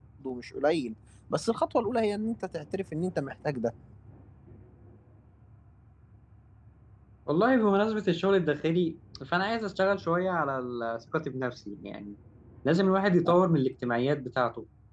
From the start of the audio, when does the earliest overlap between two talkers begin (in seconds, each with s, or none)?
none